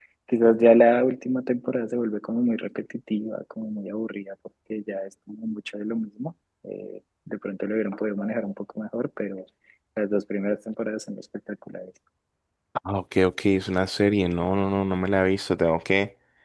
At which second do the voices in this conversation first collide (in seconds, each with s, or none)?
none